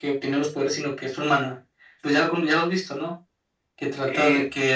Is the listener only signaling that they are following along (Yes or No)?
No